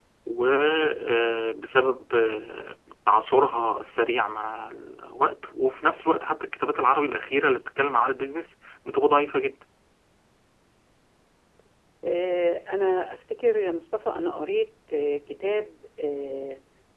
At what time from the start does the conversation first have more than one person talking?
none

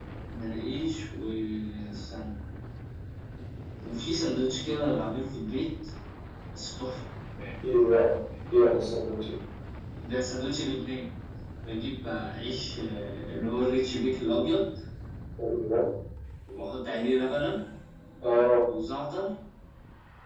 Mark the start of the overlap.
none

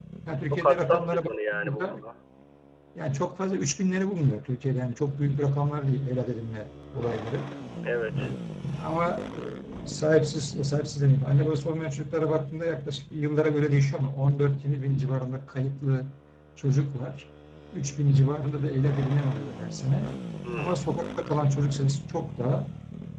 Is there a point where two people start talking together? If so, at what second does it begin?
0.5 s

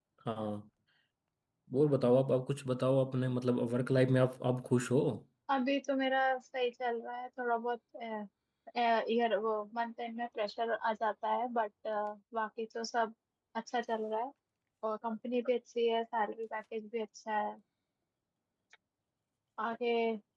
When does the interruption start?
none

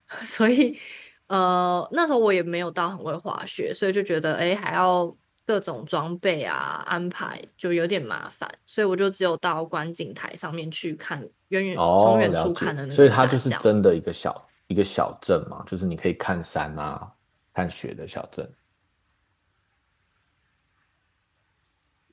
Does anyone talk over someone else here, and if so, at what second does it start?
11.8 s

